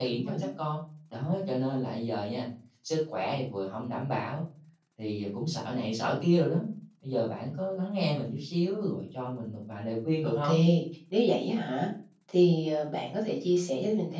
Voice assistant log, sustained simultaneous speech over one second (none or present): none